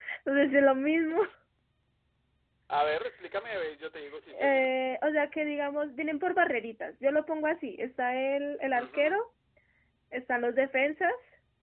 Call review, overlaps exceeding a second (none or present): none